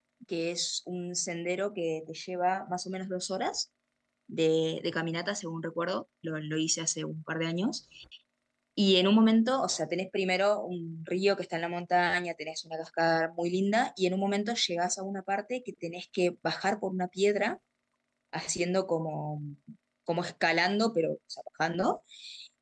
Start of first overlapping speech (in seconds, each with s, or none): none